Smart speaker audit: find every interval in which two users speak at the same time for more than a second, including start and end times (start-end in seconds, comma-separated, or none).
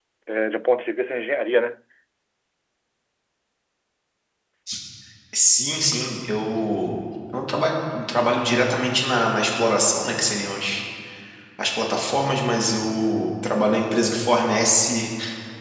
none